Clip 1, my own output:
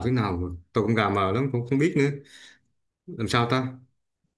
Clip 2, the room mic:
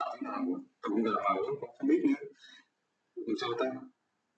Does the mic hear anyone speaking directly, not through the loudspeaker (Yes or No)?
No